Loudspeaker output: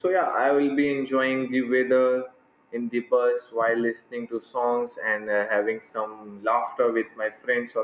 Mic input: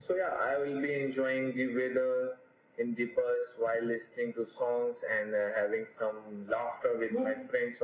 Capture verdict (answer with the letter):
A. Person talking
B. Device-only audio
A